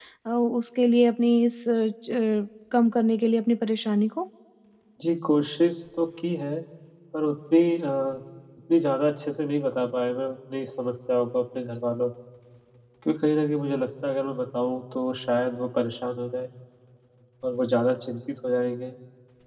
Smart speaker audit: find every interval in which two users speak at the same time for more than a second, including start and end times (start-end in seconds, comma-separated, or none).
none